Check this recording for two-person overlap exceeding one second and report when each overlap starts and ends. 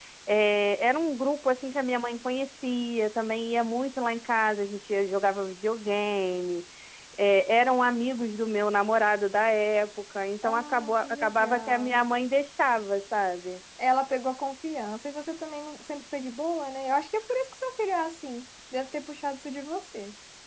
10.4-11.9

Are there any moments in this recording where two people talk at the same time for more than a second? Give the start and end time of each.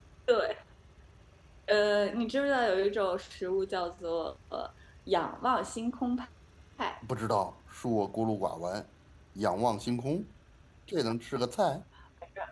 none

